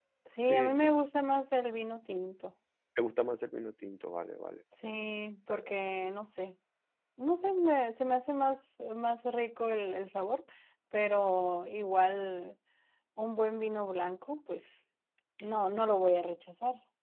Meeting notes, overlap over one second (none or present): none